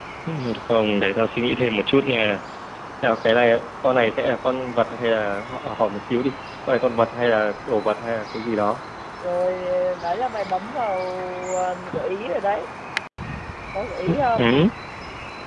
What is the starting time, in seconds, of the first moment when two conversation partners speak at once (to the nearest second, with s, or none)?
none